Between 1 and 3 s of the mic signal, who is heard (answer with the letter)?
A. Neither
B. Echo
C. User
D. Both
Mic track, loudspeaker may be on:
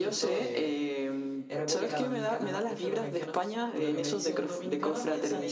D